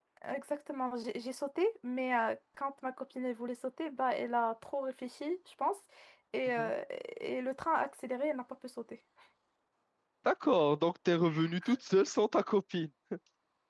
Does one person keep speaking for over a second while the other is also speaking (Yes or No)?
No